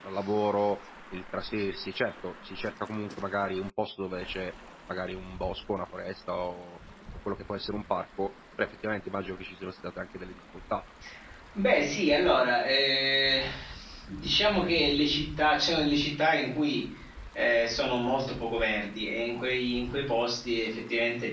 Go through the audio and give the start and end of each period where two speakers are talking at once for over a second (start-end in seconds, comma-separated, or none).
none